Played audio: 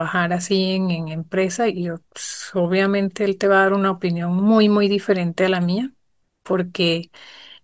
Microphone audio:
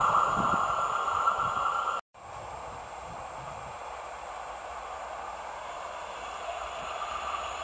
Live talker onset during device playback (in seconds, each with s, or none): none